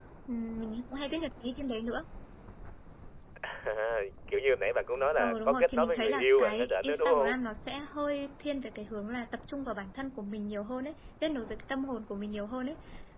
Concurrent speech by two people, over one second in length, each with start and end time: 5.2-7.3

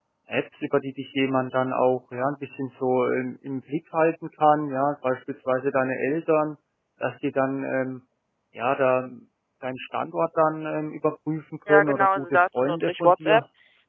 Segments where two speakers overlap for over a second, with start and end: 11.7-13.4

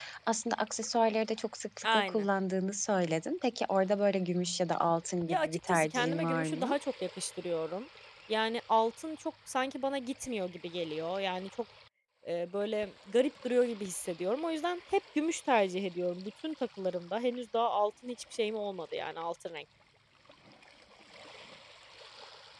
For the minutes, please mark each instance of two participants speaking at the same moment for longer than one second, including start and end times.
5.3-6.7

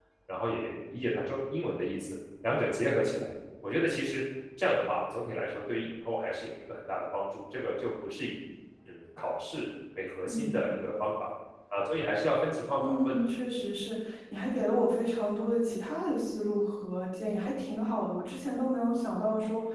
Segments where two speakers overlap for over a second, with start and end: none

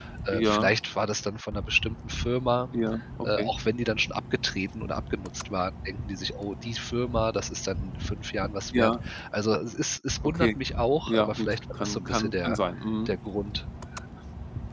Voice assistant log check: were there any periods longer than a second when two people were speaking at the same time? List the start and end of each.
11.1-12.6

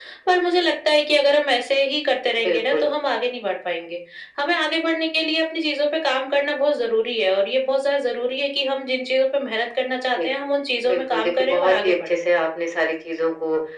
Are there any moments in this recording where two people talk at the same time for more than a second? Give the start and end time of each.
10.9-12.3

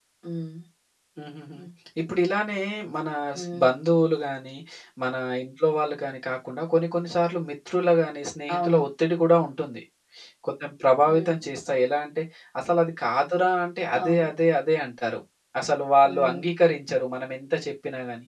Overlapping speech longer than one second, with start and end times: none

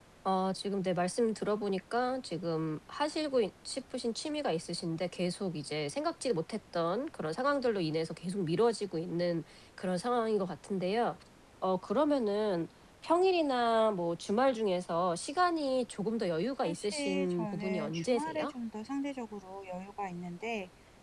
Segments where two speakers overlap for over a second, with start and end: 16.6-18.5

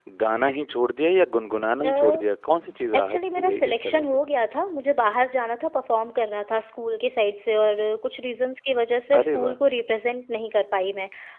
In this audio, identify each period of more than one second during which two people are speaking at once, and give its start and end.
3.0-4.2

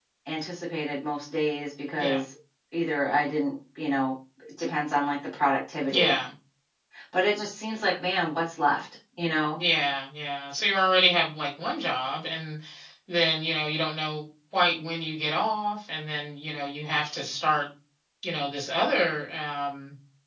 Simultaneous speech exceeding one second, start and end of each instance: none

